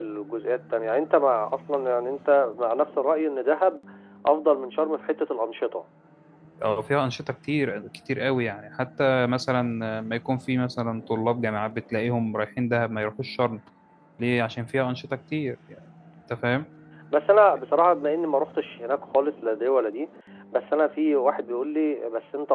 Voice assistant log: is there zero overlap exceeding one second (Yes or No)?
Yes